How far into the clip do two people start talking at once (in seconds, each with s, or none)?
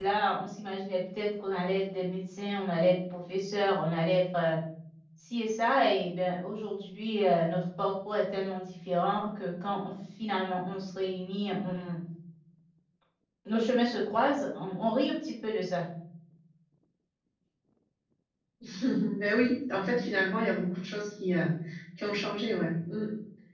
none